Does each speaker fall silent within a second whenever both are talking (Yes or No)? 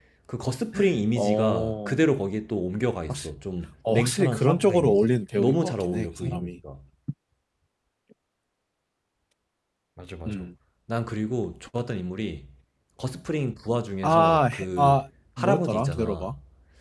No